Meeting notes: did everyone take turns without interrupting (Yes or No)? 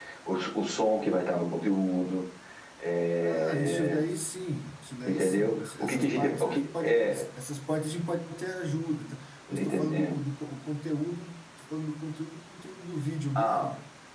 No